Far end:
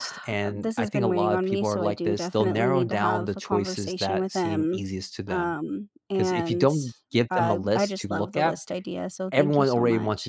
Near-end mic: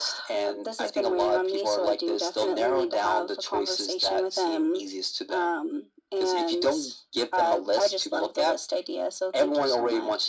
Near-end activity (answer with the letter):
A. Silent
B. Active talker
A